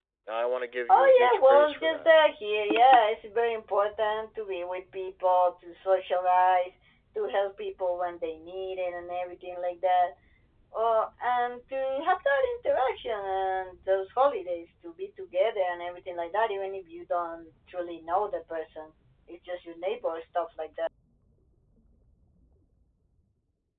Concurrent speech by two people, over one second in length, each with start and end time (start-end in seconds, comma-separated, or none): 0.9-2.1